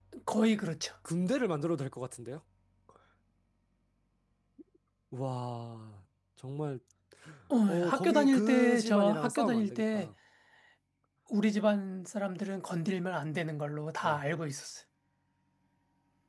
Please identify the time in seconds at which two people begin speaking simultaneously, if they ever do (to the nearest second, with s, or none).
8 s